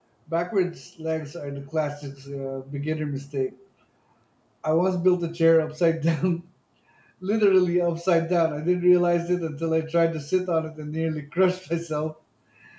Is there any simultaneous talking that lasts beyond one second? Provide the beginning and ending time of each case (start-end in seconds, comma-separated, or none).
none